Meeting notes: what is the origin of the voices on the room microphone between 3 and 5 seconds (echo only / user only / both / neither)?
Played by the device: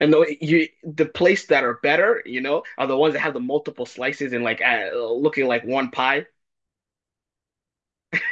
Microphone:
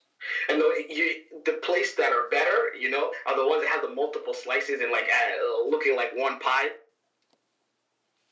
echo only